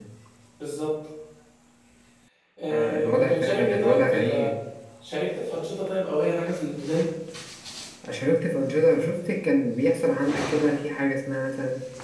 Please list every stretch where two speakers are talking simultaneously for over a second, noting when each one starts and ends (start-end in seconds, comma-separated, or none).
2.7-4.5